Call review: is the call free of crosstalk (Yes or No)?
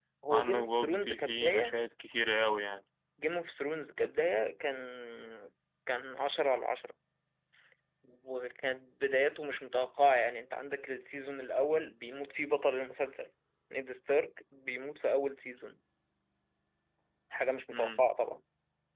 No